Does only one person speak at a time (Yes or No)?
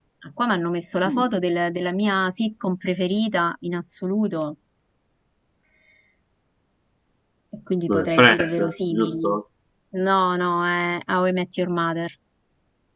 No